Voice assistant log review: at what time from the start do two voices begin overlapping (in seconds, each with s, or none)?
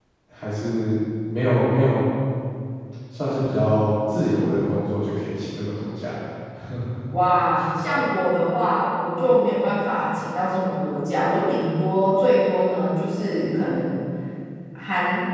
none